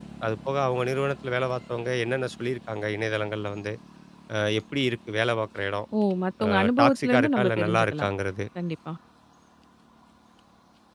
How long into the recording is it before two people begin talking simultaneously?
6.5 s

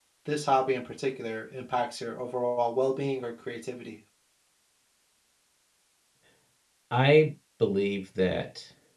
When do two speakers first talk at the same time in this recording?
none

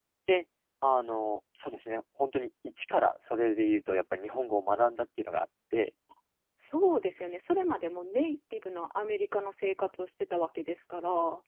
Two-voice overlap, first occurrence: none

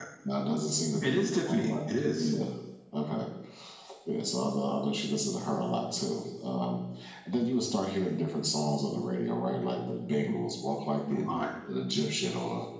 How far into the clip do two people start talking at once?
1.0 s

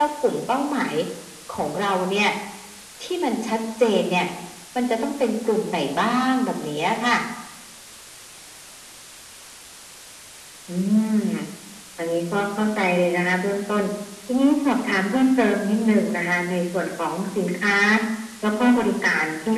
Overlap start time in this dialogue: none

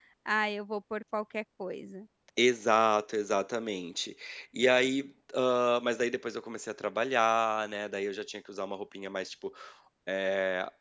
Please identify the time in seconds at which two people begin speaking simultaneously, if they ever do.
none

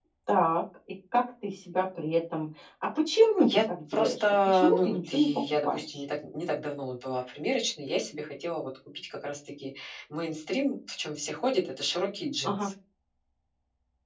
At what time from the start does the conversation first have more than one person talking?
3.4 s

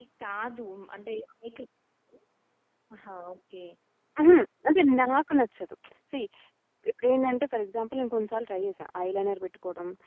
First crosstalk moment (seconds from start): none

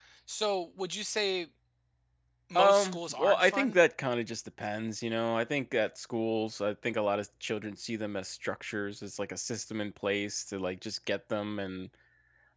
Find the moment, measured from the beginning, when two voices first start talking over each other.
2.5 s

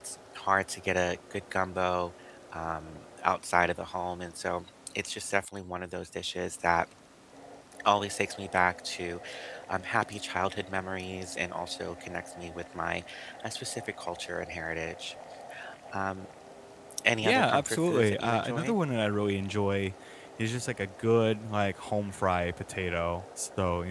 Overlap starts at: 17.2 s

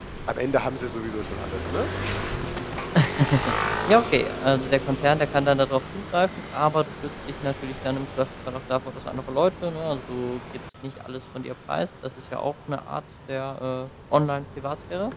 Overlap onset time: none

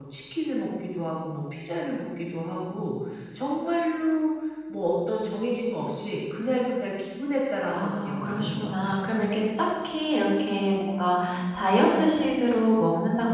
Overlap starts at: 7.7 s

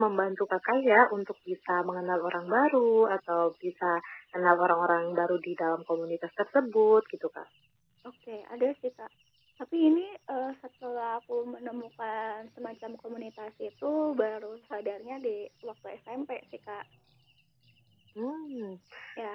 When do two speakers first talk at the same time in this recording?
none

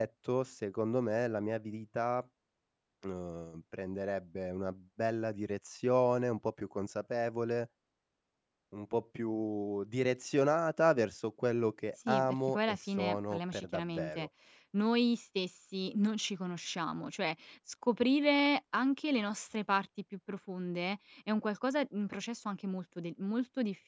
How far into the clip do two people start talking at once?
12.0 s

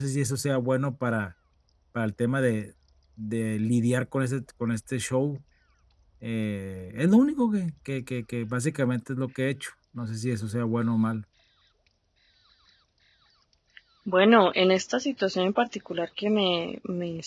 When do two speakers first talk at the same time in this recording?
none

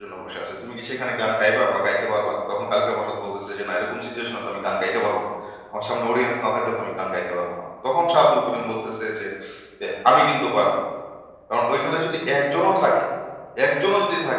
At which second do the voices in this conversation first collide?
none

